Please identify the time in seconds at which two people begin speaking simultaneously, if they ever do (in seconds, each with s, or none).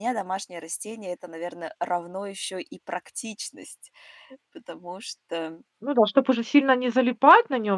none